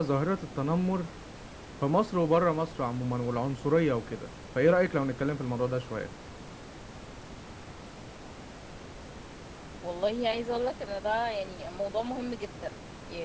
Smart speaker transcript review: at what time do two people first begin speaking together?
none

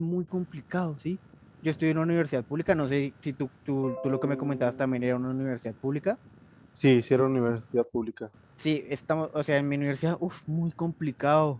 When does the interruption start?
none

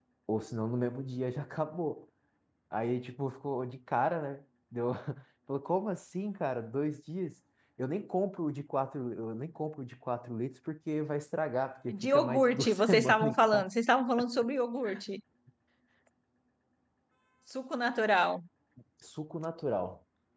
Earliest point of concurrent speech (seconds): 11.9 s

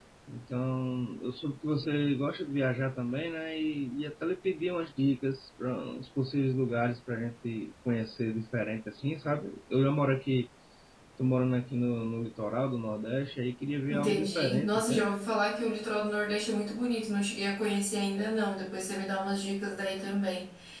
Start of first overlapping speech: 13.9 s

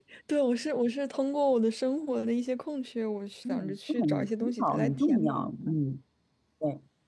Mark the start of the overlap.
3.5 s

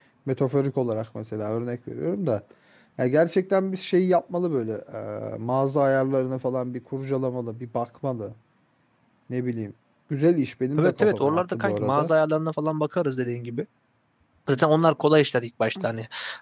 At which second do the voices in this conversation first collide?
10.8 s

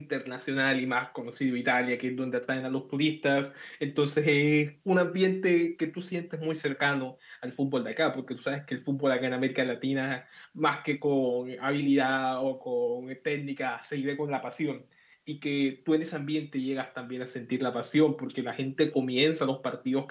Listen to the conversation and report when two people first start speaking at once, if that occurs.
none

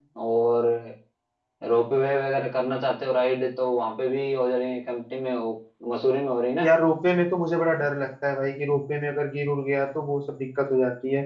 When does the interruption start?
none

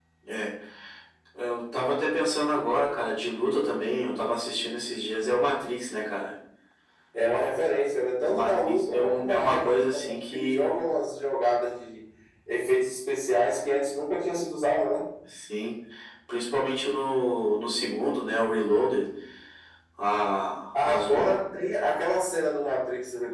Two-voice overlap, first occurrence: 8.2 s

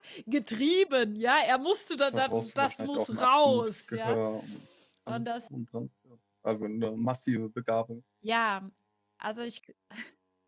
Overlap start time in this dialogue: 2.1 s

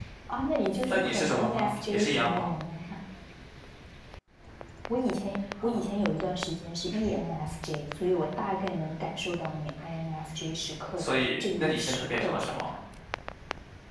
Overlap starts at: 0.9 s

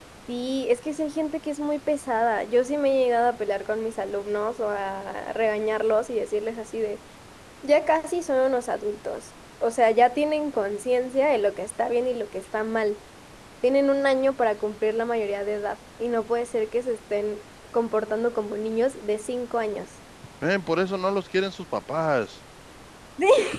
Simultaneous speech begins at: none

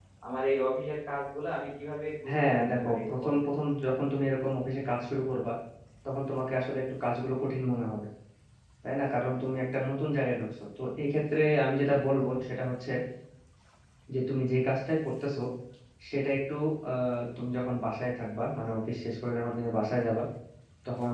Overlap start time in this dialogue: 2.3 s

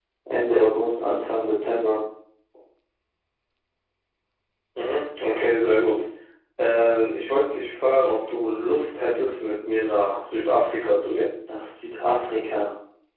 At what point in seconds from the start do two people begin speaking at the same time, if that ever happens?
none

